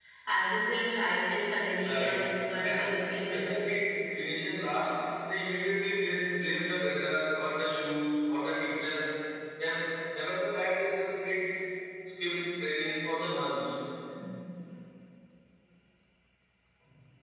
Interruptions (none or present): present